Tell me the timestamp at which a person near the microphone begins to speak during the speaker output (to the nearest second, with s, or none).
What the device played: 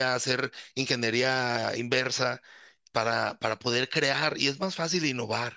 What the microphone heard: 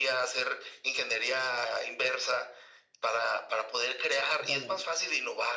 4 s